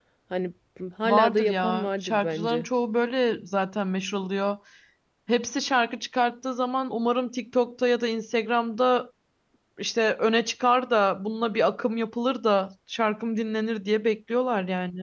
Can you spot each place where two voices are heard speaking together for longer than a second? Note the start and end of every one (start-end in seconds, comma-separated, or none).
1.0-2.7